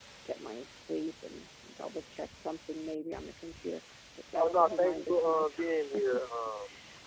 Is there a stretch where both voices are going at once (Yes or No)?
Yes